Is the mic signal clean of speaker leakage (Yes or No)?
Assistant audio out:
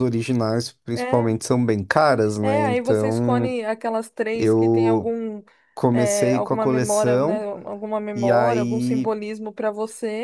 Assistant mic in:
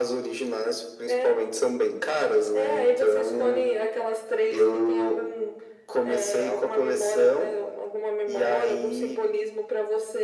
No